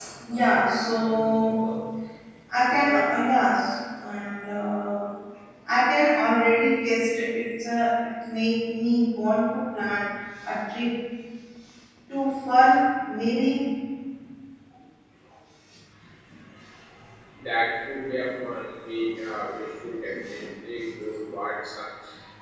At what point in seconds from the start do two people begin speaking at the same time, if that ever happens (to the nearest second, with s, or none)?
none